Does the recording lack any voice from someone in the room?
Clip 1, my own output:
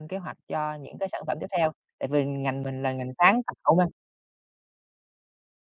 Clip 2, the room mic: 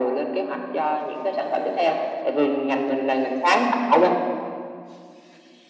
Yes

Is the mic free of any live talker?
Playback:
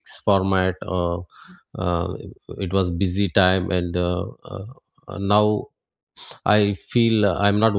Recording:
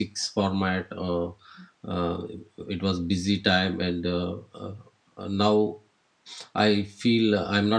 Yes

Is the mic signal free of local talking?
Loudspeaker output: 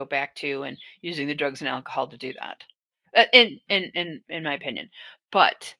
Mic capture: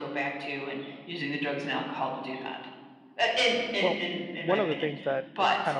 No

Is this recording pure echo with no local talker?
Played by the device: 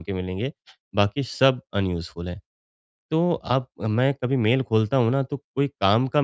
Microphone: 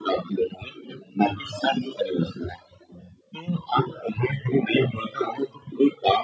Yes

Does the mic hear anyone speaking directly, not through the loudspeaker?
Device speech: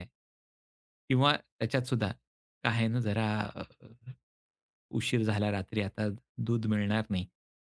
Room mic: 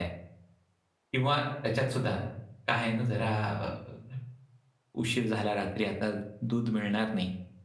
No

